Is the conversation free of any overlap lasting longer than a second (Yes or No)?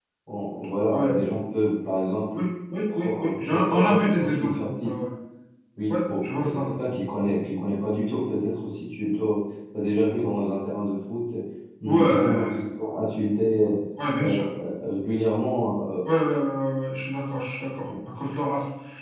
No